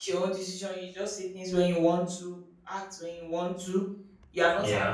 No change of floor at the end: Yes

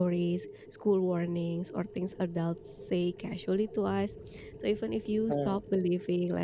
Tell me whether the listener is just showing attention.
Yes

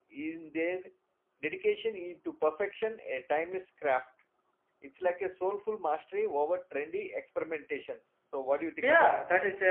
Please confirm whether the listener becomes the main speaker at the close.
Yes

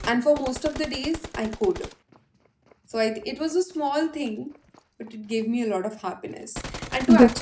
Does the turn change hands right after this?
No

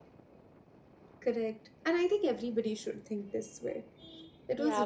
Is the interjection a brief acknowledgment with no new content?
No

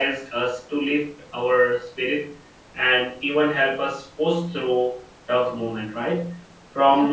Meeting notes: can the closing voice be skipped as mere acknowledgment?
Yes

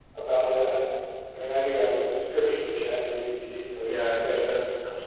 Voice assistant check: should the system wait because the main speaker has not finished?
No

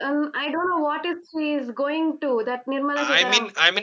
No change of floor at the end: No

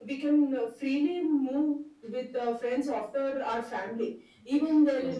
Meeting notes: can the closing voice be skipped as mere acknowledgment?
Yes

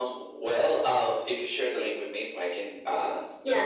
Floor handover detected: Yes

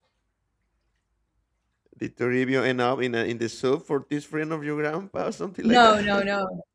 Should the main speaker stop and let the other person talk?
Yes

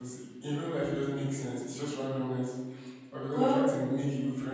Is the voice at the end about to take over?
No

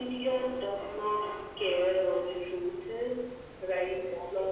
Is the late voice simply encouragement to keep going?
Yes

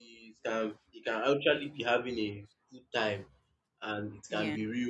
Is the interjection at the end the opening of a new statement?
No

